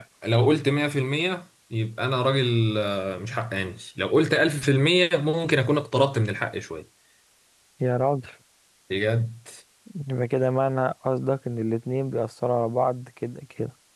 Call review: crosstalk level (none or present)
none